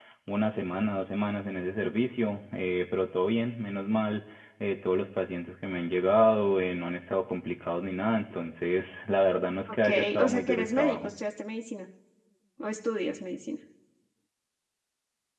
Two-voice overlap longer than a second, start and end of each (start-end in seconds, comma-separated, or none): 9.8-11.1